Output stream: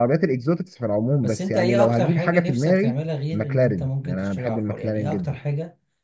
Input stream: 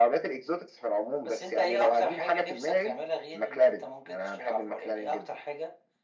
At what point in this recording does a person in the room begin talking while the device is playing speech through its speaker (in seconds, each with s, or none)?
none